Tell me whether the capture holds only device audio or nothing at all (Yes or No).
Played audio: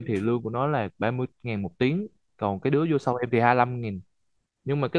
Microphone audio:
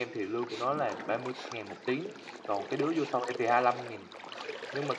Yes